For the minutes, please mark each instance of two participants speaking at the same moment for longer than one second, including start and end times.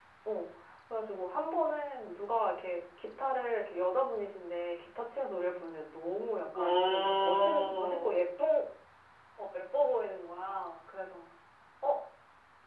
6.5-8.1

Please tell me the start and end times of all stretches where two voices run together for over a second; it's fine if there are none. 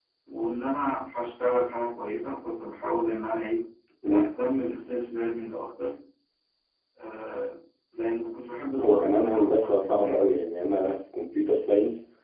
8.8-10.4

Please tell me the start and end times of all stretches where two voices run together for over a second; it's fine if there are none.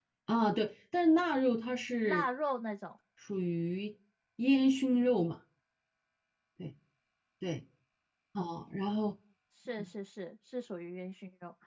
none

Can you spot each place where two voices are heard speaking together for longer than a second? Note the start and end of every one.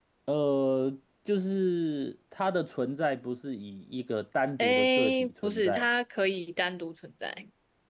4.6-5.8

